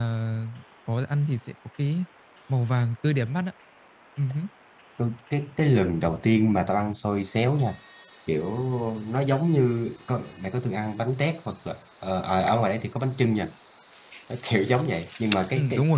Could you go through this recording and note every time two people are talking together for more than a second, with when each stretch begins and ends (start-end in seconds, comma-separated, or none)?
none